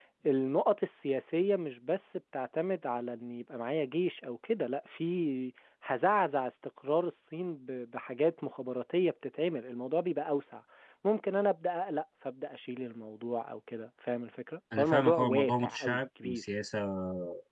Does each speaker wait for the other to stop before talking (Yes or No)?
No